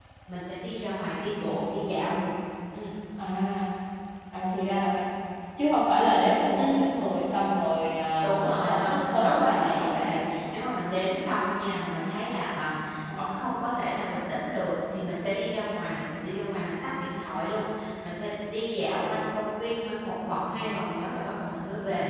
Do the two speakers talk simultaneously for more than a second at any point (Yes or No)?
Yes